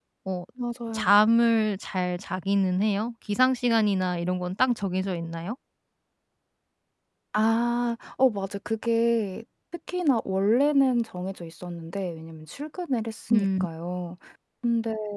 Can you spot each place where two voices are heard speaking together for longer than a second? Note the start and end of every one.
none

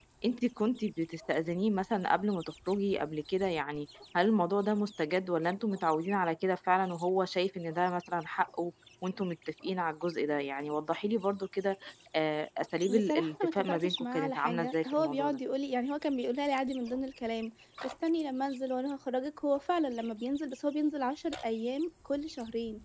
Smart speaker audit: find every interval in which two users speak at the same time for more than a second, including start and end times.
12.9-15.4

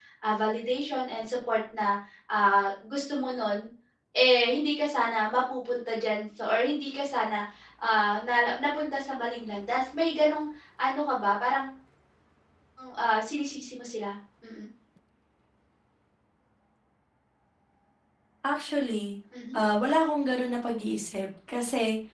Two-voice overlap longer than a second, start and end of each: none

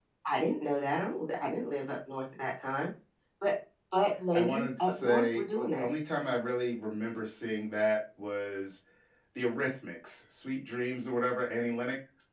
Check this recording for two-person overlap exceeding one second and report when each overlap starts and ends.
4.3-5.8

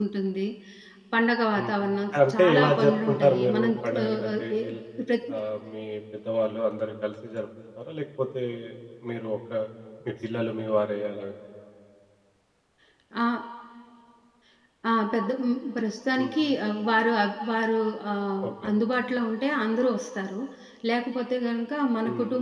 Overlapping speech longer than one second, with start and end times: 2.3-4.6

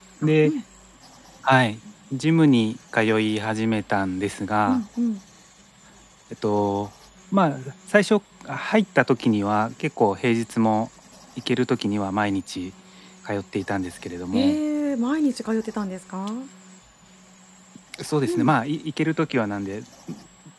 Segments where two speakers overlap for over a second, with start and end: none

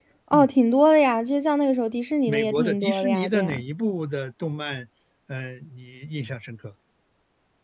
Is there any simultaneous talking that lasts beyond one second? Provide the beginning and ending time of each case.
2.3-3.6

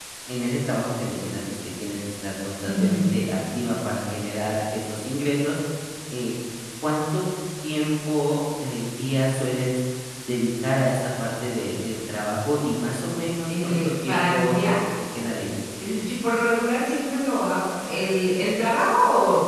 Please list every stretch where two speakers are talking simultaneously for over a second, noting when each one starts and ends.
13.5-14.8

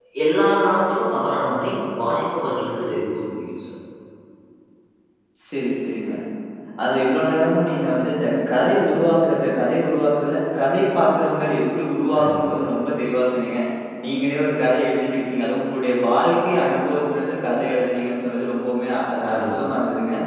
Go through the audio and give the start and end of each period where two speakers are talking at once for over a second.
none

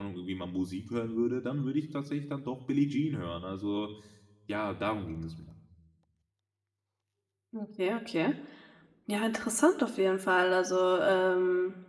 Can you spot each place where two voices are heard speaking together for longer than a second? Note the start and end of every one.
none

